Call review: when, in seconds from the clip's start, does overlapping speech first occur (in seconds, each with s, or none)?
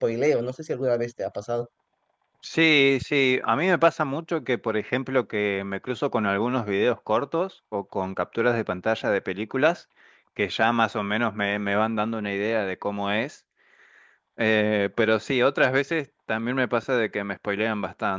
none